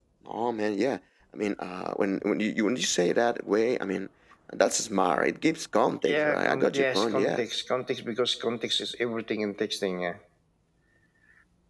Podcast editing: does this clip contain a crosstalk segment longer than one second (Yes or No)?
Yes